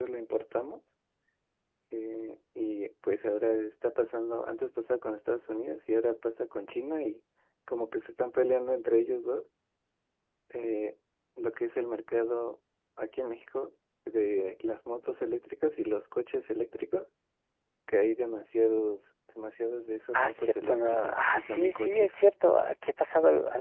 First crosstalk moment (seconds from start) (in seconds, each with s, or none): 20.1 s